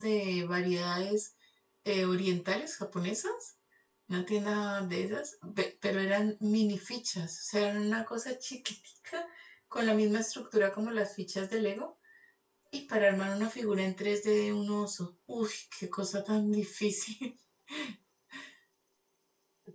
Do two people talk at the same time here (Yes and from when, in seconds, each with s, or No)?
No